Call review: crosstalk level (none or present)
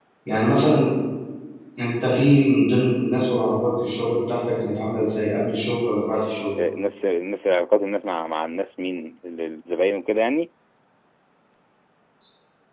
none